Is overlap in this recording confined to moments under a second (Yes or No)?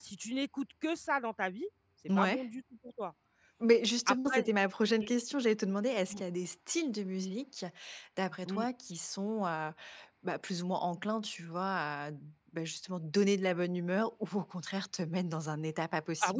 Yes